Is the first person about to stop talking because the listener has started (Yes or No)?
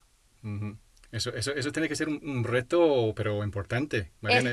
Yes